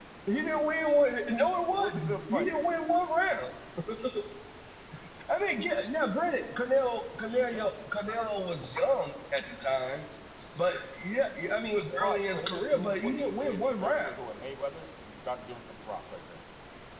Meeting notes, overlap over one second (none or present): present